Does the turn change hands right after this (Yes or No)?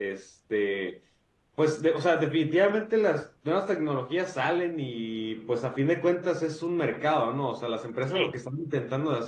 No